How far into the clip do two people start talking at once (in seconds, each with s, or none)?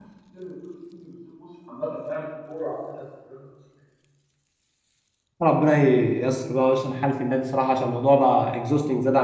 none